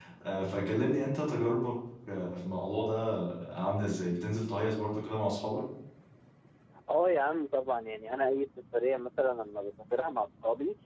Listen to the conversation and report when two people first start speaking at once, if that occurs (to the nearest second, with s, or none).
none